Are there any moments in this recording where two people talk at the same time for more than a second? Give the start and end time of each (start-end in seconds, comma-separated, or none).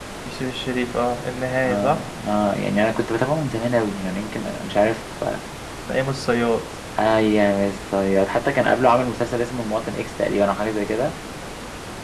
none